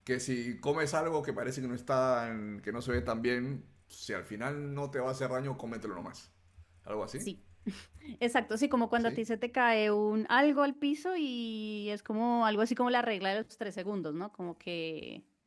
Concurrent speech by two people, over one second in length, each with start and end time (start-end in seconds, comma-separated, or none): none